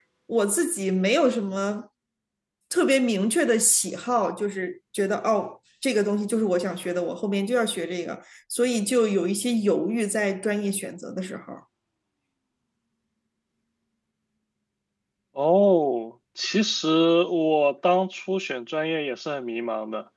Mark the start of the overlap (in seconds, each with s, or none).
none